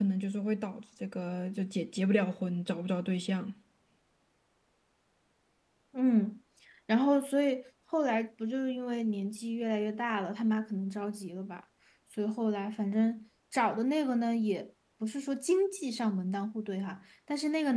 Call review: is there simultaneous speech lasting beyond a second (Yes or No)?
No